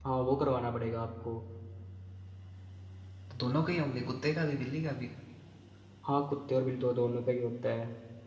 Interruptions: none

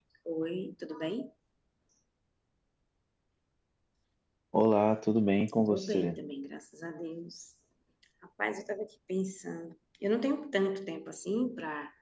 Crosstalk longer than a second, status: none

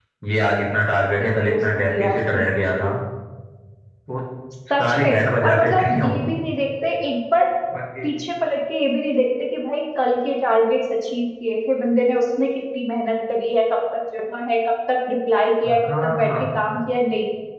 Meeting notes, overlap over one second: present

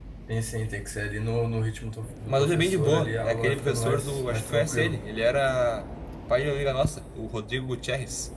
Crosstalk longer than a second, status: present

